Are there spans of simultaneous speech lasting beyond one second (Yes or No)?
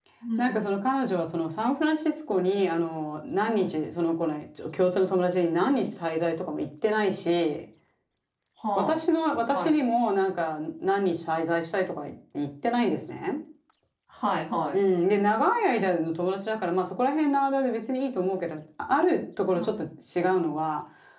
No